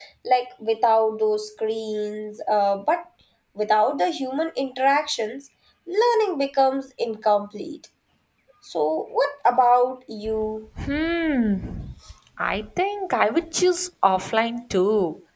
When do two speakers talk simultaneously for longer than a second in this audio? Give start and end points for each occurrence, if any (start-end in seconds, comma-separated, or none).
none